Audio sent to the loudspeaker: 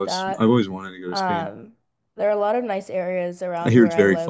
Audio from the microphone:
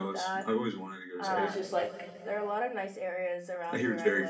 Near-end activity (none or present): present